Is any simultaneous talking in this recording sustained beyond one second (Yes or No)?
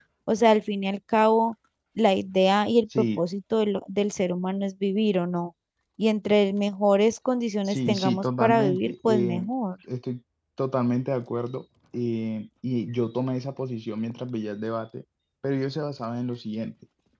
Yes